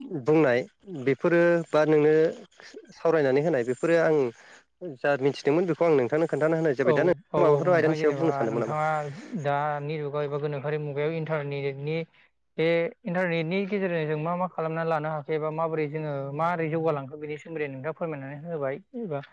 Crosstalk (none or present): present